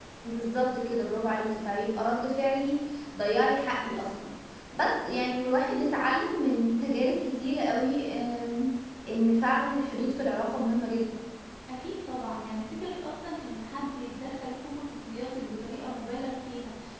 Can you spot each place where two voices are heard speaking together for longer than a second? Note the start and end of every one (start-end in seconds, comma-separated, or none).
none